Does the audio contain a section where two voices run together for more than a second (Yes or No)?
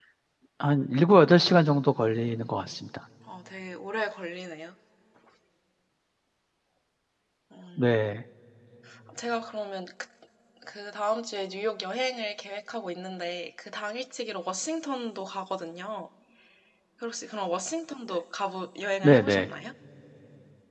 No